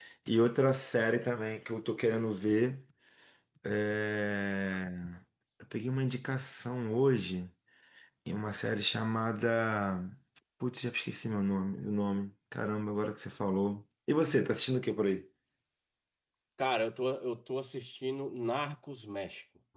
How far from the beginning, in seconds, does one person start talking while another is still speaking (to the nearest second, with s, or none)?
none